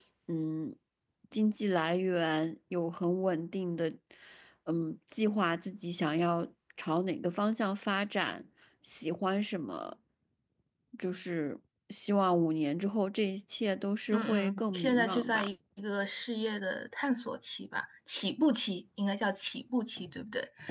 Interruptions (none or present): present